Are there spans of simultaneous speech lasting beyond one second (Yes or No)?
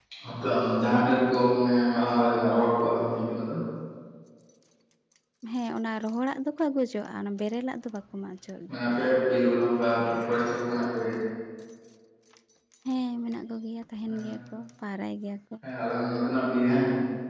No